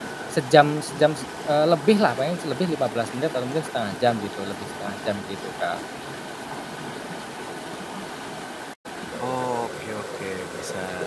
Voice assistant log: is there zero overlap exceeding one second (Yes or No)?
Yes